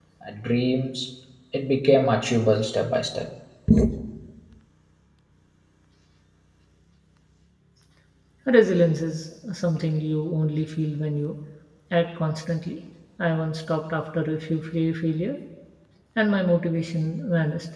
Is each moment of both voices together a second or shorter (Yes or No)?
Yes